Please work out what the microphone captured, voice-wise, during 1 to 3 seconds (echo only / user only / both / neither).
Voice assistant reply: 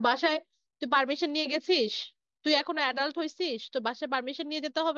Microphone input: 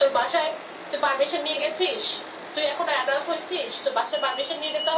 echo only